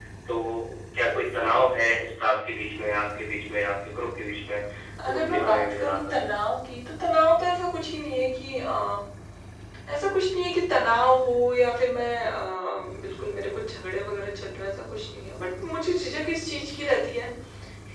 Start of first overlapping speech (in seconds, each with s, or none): 5.0 s